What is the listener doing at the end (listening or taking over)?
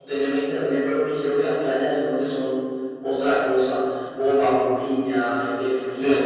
listening